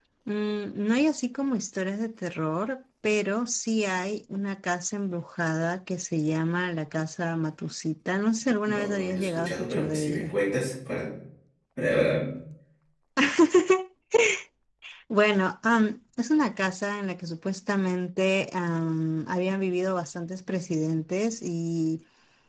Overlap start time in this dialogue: 8.7 s

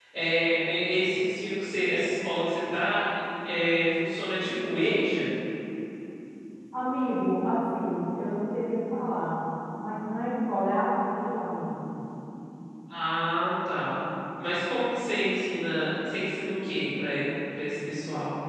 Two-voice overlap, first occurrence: none

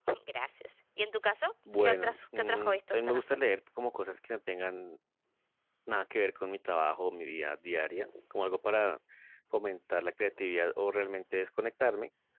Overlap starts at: 1.8 s

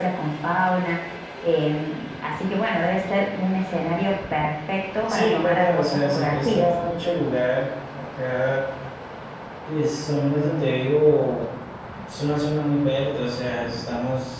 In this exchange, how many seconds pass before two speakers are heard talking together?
5.1 s

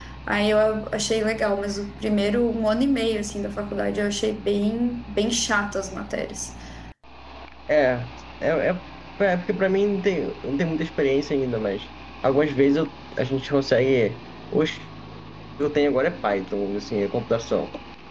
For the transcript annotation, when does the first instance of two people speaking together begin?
none

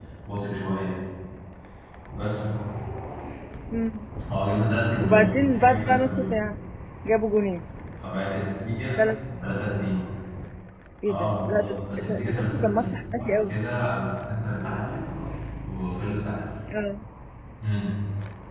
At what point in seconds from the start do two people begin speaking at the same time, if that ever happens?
5.0 s

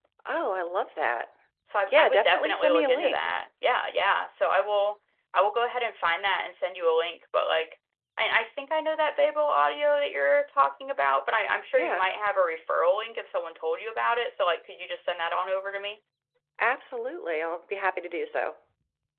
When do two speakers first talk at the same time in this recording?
1.9 s

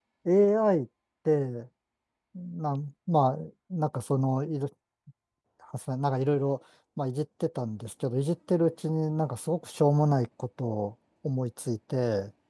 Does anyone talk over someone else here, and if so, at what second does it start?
none

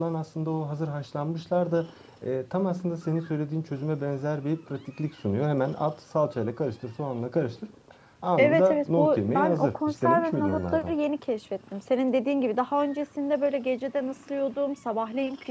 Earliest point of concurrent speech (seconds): 8.4 s

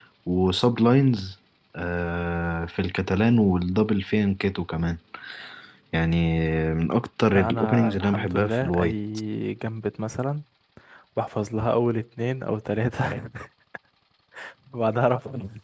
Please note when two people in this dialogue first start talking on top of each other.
7.3 s

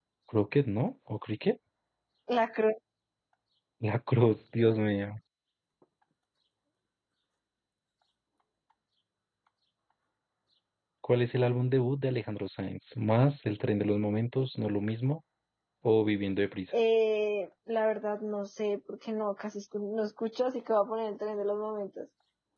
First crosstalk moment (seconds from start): none

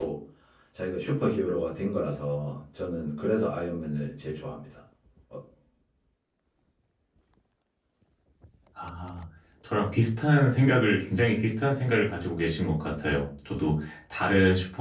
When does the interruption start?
none

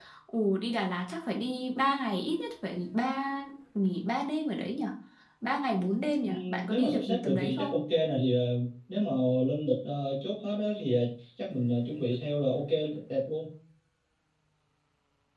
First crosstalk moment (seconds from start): 6.2 s

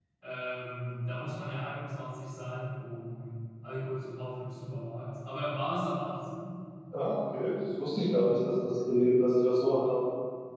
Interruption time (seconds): none

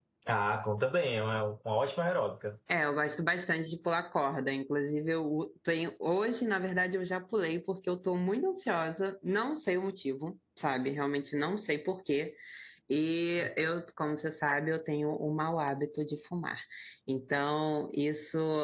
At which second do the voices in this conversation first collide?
none

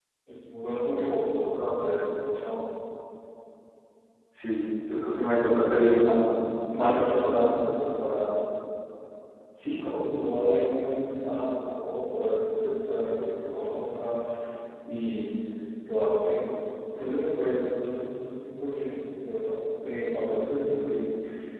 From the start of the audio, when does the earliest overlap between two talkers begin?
5.7 s

